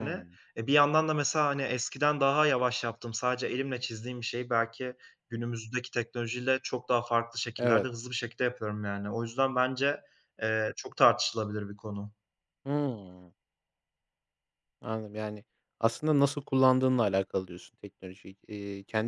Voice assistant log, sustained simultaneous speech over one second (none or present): none